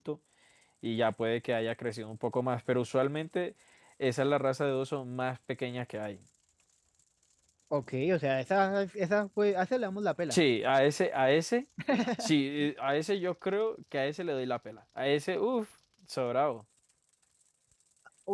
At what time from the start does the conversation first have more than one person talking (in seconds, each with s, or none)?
none